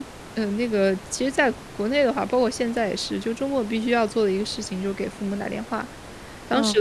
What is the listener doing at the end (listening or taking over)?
listening